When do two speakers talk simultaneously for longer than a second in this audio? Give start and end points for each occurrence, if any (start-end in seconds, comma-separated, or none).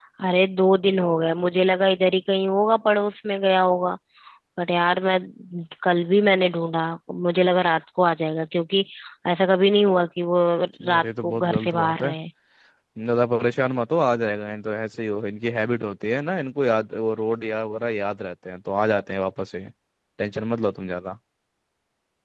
10.9-12.1